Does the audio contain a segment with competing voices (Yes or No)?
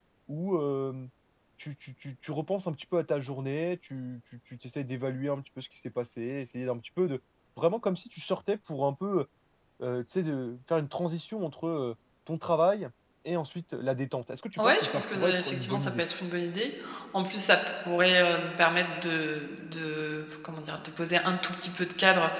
Yes